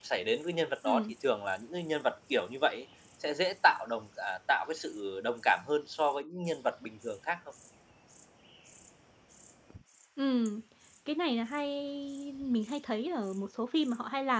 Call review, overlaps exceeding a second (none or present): none